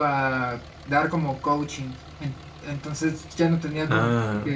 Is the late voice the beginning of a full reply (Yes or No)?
No